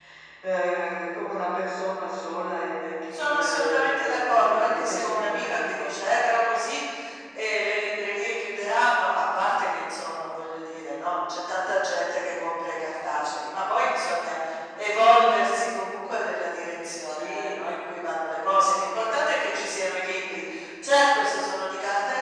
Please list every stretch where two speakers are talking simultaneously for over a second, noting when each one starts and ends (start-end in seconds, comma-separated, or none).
3.1-6.2